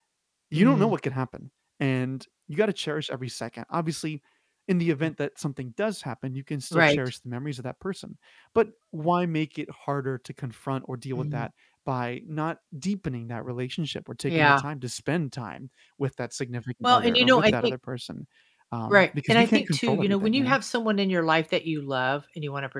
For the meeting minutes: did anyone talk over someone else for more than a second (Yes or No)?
Yes